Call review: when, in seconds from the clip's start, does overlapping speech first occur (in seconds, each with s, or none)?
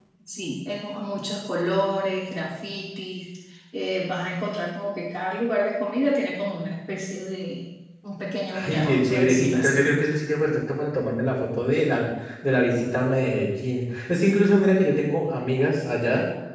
8.5 s